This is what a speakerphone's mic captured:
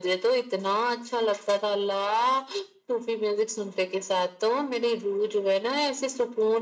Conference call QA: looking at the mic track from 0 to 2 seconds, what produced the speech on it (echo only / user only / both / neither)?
echo only